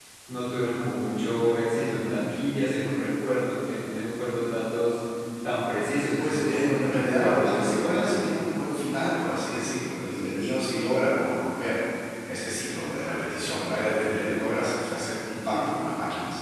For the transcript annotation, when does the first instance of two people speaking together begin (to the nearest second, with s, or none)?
6 s